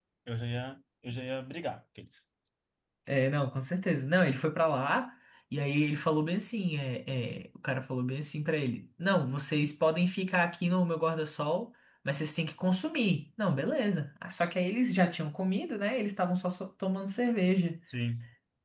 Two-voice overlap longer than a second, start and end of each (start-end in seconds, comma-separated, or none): none